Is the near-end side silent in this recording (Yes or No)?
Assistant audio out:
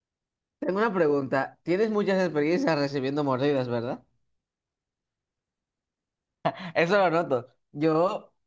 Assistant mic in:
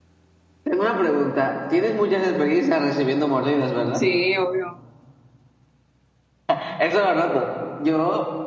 No